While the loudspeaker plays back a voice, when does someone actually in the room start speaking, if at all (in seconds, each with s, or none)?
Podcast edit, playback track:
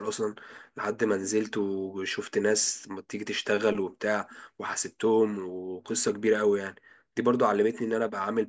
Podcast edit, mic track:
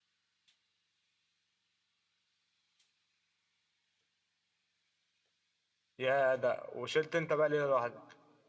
6.0 s